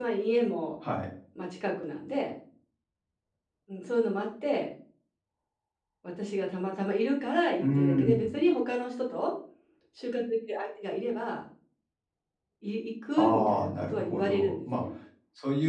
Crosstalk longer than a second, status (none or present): present